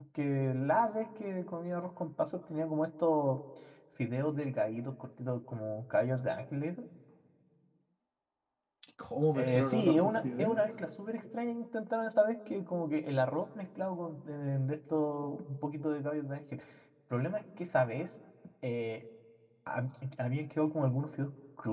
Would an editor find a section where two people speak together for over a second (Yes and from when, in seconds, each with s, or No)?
Yes, from 9.4 s